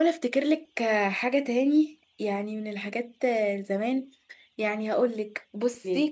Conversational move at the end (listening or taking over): listening